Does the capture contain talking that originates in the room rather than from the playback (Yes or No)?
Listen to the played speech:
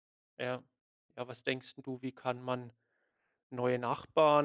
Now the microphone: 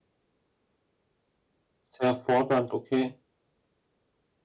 Yes